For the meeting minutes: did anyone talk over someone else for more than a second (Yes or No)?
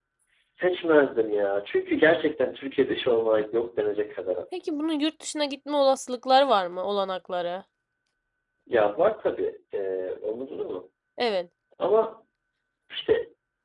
No